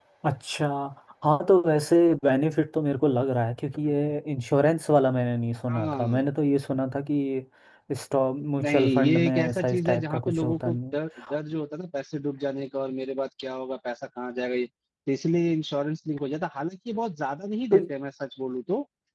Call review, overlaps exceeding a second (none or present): present